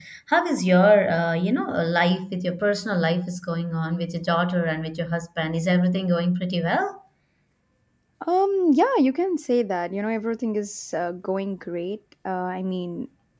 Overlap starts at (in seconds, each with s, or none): none